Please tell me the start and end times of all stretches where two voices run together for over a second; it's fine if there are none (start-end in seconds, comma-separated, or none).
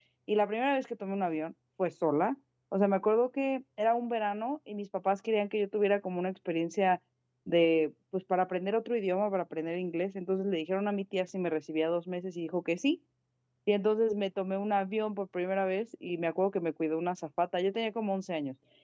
none